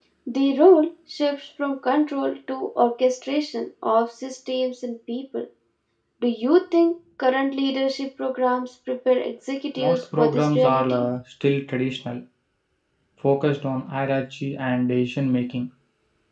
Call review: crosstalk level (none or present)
present